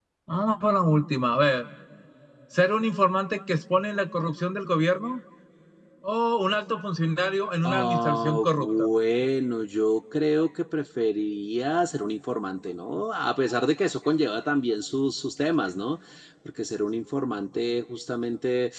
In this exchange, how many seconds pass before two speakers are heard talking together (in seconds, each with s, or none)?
7.6 s